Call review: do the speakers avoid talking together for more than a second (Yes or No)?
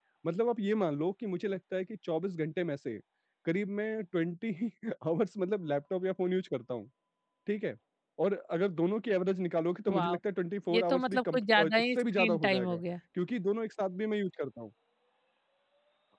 No